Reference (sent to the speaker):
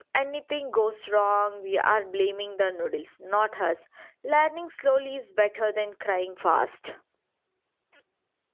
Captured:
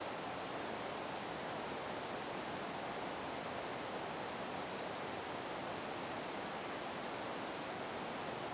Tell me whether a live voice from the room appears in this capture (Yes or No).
No